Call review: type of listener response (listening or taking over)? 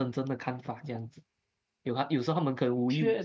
listening